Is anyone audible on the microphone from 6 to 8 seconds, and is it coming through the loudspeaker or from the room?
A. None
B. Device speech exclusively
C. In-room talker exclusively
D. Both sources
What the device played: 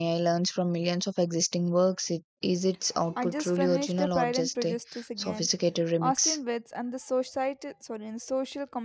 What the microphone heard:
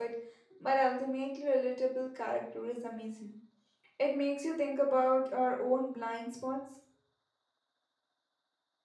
C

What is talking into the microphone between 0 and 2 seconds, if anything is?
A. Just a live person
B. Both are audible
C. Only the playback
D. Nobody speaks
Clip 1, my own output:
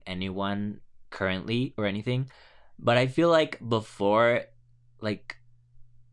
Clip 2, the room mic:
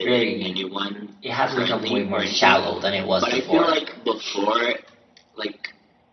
B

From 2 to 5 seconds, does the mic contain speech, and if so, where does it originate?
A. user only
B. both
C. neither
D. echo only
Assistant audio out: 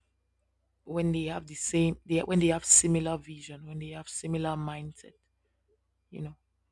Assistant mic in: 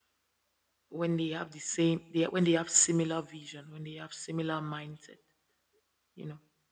D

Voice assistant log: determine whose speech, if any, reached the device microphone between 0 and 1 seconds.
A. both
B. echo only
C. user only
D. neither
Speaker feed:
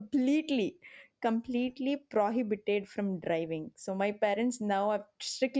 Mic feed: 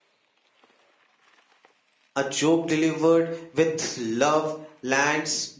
D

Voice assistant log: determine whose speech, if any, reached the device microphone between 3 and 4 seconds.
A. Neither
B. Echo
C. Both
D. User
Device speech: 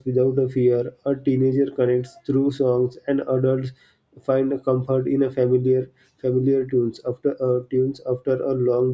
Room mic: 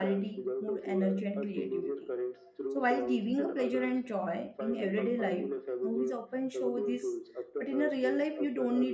C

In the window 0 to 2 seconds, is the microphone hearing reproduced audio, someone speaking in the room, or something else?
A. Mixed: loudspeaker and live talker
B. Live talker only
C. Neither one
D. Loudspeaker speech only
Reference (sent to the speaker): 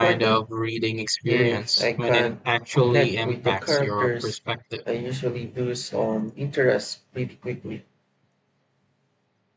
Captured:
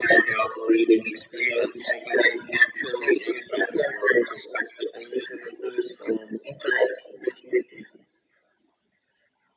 D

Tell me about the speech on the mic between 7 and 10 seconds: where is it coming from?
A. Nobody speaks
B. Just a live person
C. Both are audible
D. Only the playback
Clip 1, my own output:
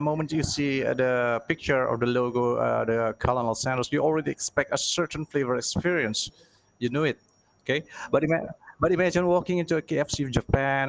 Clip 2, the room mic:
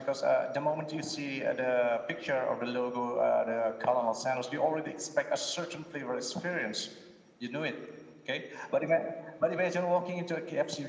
D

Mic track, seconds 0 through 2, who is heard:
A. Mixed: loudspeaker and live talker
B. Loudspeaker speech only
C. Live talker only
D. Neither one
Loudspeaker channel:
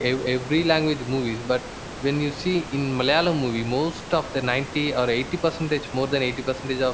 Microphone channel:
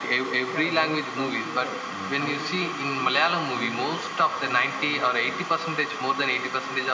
A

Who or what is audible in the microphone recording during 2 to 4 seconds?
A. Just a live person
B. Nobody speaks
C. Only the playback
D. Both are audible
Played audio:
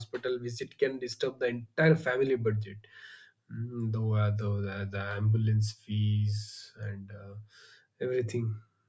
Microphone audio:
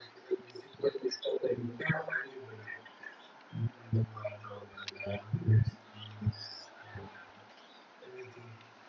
C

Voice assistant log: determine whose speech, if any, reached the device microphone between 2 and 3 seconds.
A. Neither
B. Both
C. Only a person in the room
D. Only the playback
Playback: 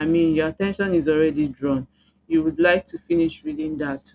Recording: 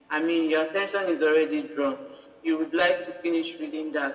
D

